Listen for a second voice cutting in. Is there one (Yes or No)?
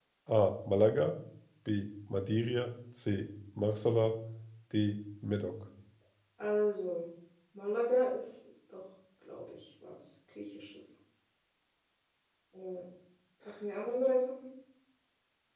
No